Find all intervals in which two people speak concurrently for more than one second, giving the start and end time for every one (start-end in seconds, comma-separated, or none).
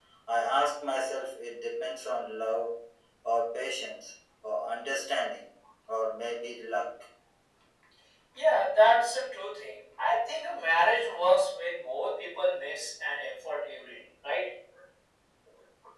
none